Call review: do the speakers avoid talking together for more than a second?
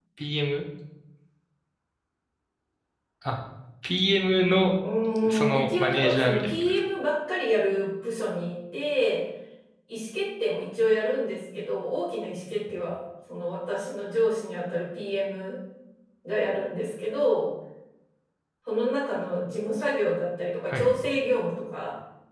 No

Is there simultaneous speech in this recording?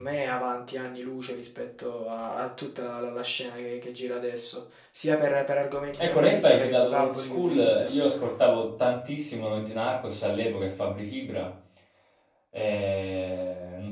Yes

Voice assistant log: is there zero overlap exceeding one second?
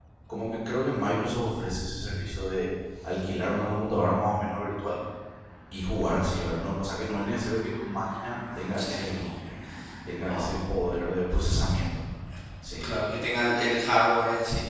Yes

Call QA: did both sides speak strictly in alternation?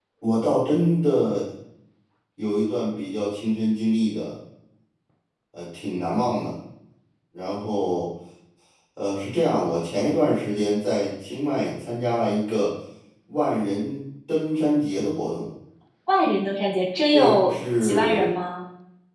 No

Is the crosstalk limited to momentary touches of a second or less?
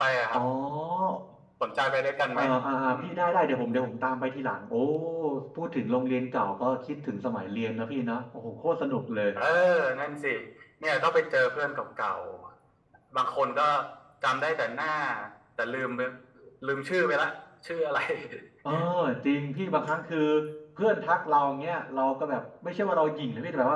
Yes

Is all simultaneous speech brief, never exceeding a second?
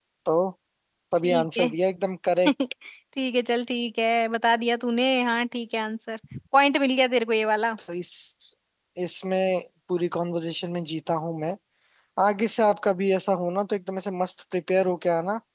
Yes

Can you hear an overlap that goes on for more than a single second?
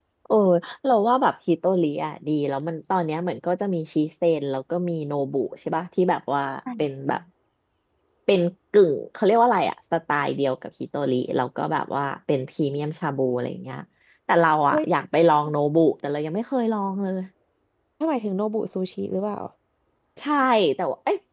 No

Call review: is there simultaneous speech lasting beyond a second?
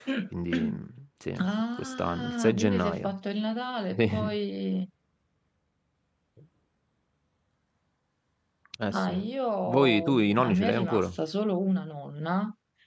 Yes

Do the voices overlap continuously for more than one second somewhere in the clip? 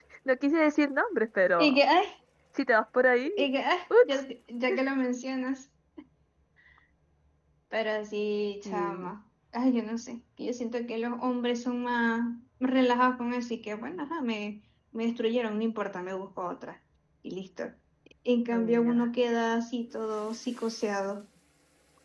No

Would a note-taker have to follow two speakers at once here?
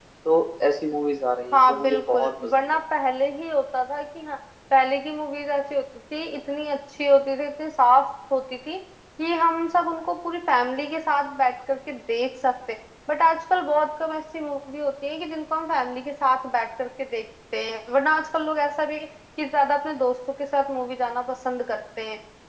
Yes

